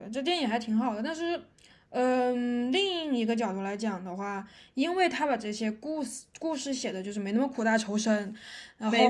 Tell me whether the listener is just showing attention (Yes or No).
Yes